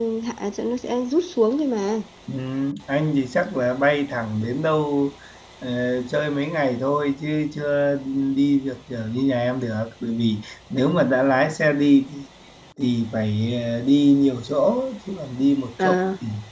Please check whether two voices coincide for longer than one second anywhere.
No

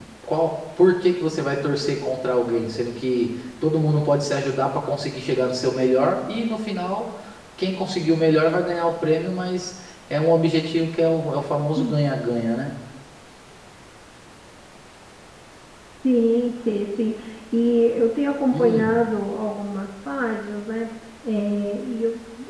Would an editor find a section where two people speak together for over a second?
No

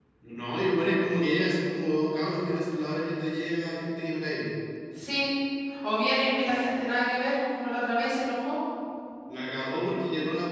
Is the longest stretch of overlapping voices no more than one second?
Yes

